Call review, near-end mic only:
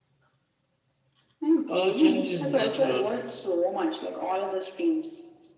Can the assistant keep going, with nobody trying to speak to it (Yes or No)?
No